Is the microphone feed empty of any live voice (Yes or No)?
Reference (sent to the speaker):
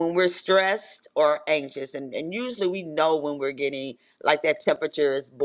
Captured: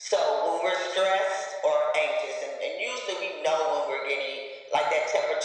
Yes